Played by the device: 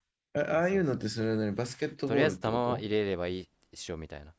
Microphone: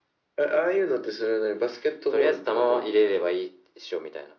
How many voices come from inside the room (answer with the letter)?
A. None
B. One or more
A